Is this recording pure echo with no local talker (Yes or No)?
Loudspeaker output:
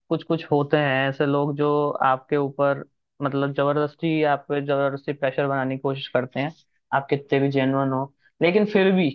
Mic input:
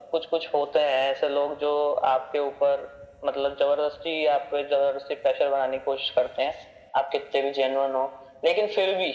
Yes